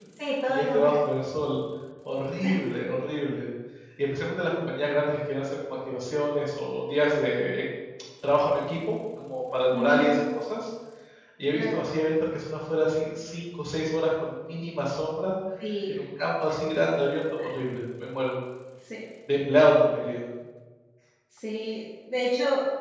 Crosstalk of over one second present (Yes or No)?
No